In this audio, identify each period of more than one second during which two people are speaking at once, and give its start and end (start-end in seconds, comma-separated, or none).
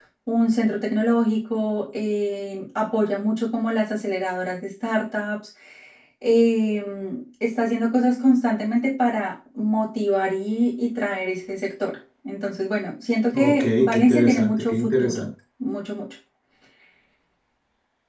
13.3-15.2